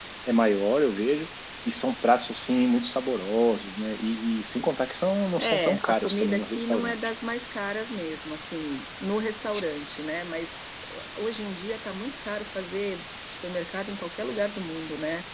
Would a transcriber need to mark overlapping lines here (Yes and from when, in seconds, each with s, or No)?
Yes, from 5.4 s